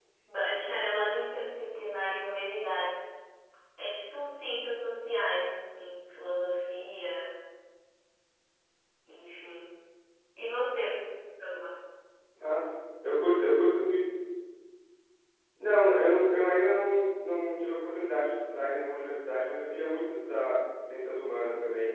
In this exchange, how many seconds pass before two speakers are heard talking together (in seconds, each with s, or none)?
none